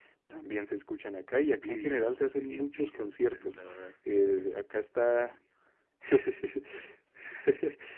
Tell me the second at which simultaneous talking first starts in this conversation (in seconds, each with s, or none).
1.4 s